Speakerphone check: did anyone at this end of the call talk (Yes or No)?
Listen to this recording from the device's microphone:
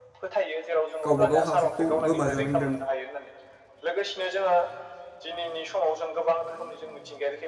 Yes